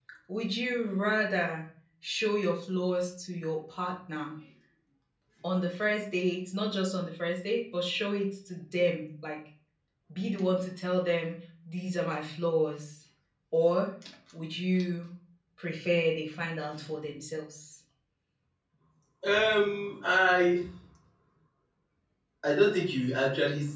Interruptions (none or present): none